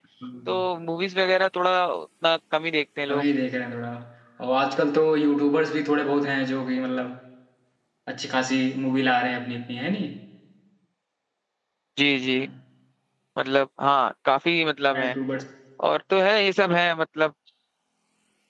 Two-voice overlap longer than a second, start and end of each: none

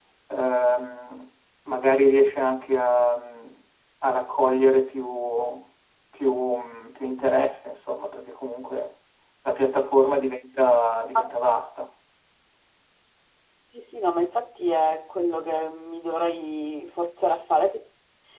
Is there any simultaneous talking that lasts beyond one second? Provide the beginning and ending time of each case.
none

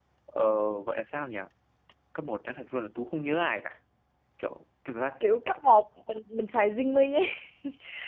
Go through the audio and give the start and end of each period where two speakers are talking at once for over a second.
none

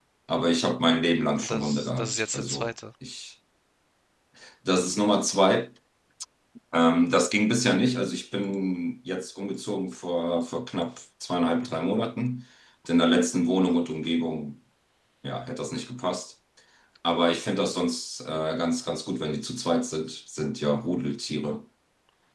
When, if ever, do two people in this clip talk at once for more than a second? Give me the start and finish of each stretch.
1.4-2.7

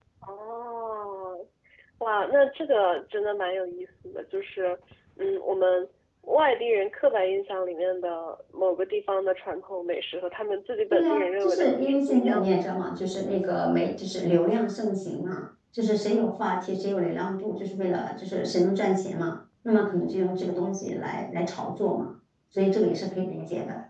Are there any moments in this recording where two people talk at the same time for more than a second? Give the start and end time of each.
10.9-12.6

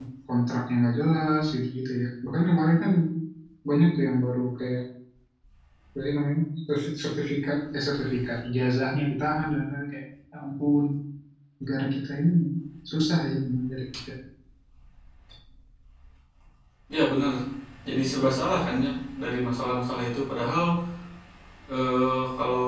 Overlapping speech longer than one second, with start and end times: none

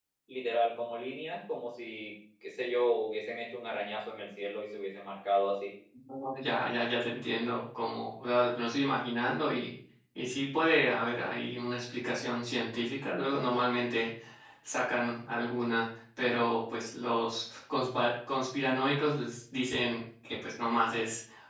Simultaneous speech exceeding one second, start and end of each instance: none

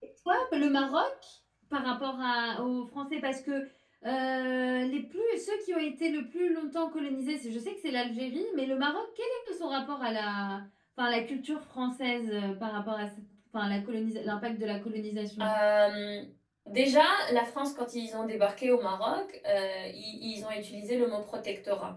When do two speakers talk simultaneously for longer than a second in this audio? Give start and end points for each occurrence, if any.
none

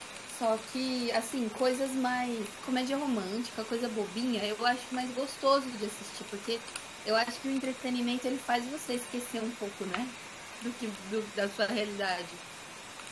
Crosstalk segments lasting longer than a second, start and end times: none

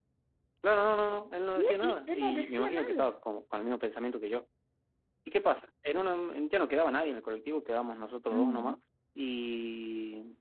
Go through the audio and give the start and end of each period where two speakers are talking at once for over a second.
1.6-3.1

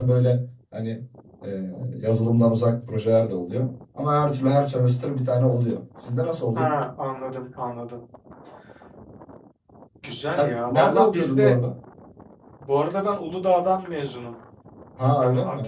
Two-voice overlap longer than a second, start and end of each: 10.3-11.6

